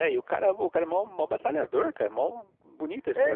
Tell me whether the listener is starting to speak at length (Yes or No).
Yes